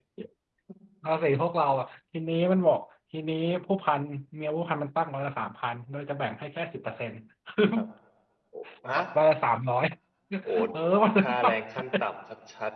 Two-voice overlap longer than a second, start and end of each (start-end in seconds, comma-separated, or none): none